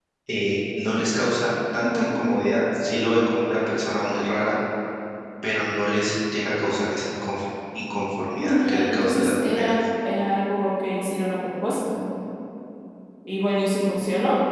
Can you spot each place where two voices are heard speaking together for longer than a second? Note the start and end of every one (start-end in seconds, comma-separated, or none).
8.4-9.7